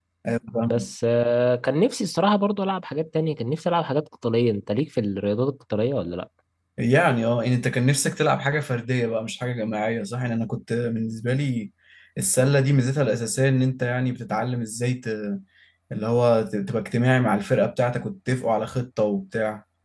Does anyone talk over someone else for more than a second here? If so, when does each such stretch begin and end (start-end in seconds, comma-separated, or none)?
none